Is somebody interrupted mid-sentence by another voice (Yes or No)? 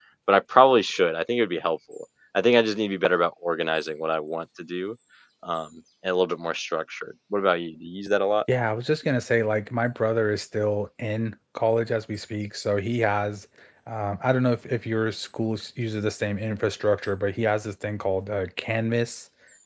No